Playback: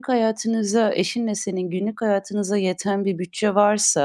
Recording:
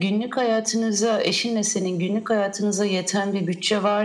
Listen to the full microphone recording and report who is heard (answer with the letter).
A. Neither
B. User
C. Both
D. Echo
D